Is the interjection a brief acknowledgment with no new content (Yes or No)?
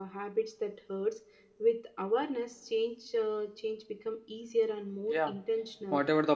No